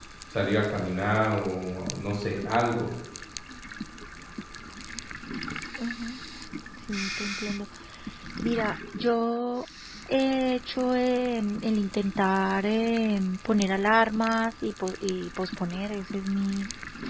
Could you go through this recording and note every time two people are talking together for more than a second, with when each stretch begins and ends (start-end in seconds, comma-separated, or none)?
none